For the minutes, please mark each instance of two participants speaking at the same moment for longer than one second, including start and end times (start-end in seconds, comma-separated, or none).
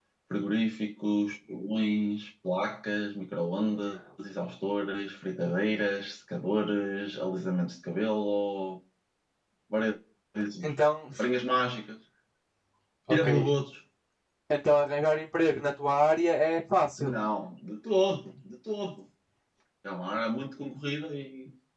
none